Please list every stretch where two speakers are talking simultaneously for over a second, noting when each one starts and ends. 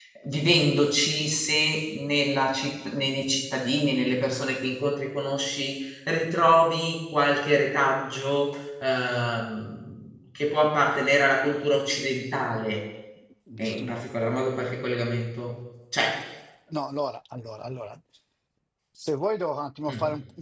none

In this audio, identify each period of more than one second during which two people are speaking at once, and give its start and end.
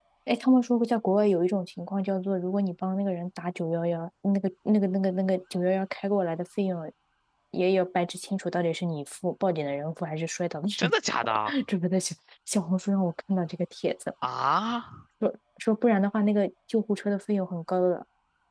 none

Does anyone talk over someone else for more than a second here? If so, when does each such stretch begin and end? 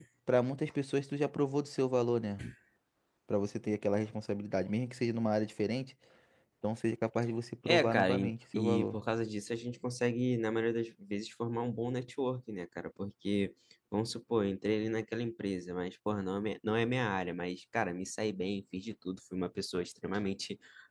7.7-9.0

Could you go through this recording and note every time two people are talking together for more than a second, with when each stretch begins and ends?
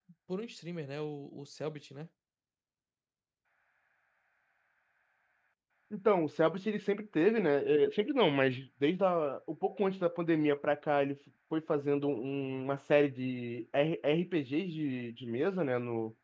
none

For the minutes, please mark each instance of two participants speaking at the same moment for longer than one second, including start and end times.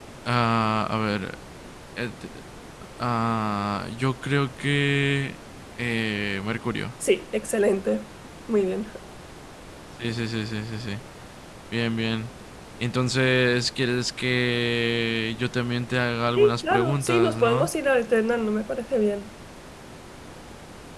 16.4-17.7

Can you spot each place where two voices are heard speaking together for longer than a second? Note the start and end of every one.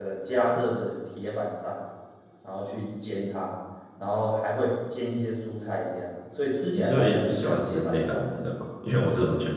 6.7-8.4

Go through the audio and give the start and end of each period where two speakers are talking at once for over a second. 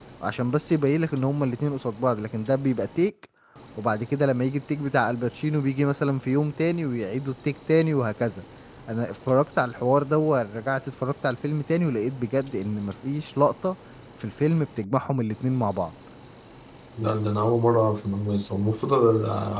none

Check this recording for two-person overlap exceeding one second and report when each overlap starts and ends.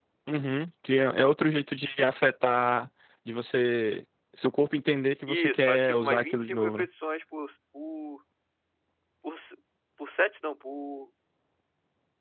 5.3-6.8

